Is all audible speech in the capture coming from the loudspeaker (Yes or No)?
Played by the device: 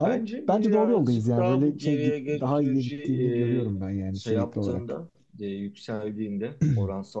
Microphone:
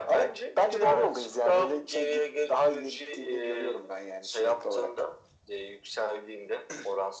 Yes